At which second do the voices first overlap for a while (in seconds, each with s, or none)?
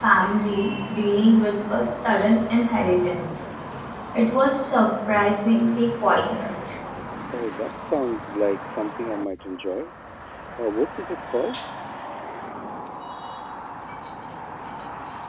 none